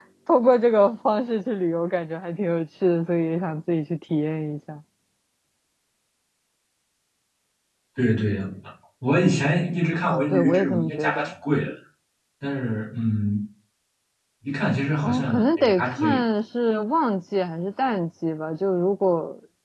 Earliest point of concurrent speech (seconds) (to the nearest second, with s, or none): 10 s